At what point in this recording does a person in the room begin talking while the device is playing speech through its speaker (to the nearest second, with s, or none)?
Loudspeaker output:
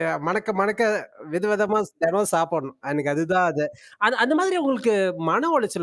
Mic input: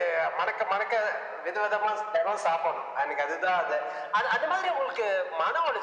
none